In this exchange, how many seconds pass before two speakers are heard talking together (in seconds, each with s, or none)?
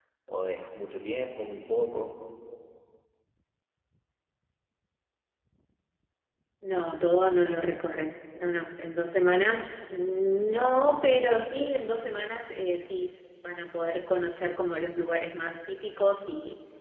none